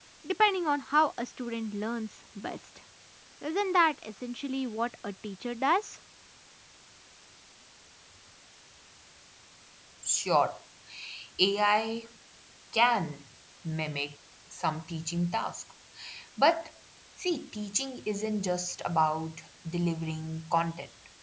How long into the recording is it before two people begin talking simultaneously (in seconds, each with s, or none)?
none